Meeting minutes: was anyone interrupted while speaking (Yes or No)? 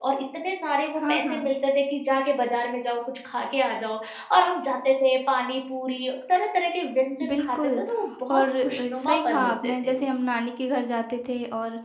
Yes